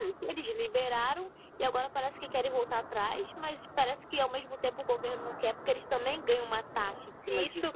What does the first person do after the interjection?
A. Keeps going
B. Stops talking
B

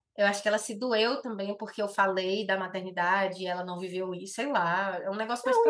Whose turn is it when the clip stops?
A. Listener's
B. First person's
A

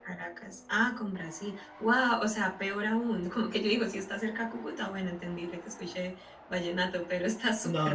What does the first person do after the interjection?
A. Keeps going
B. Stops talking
B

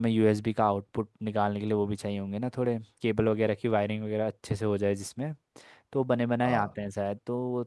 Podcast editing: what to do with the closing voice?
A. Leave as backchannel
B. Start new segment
A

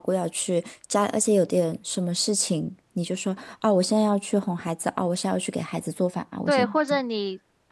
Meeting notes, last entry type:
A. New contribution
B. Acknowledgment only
A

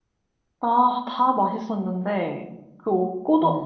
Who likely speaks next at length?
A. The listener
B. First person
B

